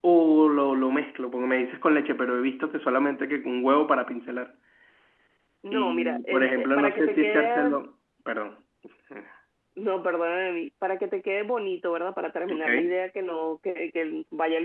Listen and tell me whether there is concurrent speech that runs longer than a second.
Yes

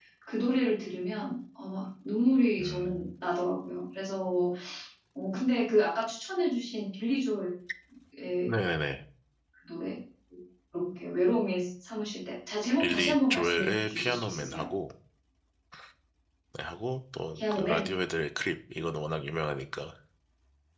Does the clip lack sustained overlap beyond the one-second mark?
No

